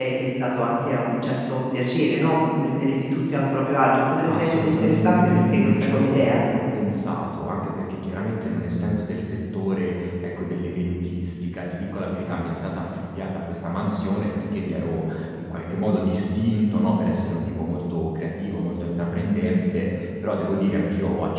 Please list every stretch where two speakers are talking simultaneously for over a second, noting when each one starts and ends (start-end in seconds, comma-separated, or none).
4.2-6.4